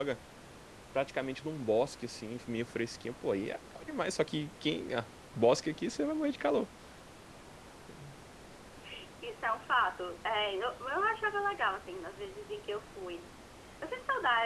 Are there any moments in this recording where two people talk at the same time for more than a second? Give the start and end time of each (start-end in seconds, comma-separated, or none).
none